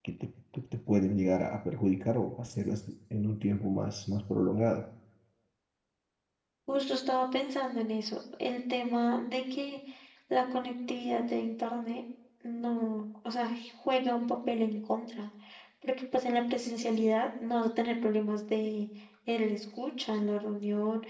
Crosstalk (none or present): none